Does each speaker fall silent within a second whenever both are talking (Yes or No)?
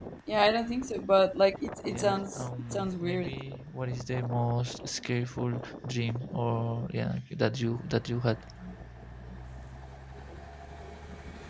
No